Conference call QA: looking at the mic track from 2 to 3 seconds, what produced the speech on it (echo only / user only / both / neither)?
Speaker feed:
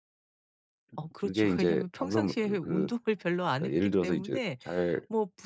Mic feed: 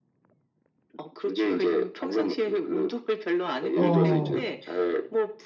echo only